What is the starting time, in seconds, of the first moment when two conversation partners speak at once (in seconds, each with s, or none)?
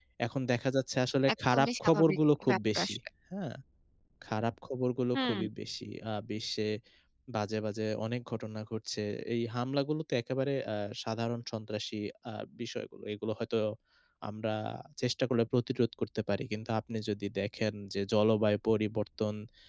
1.5 s